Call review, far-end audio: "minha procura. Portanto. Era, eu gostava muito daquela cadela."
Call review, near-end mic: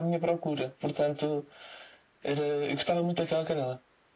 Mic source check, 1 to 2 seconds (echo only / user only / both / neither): echo only